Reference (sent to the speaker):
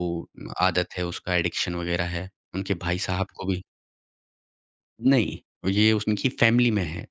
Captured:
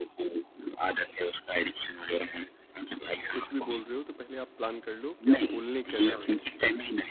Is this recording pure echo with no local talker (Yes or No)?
No